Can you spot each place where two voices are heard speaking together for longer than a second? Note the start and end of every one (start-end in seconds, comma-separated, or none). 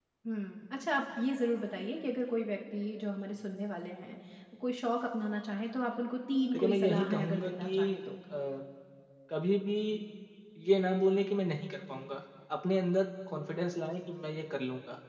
6.5-7.9